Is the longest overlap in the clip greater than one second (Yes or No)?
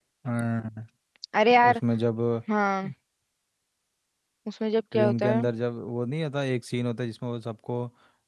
No